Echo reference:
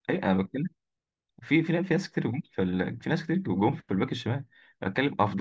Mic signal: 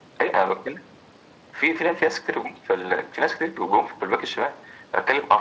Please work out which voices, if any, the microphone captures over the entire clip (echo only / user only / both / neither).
echo only